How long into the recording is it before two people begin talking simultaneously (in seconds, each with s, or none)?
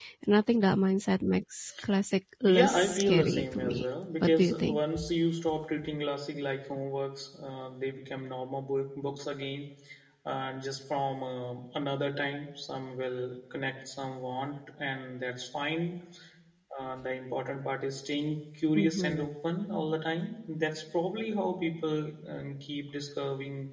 2.5 s